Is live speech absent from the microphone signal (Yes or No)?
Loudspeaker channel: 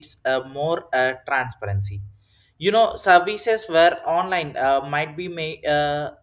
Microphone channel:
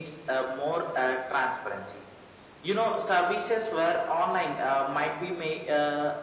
Yes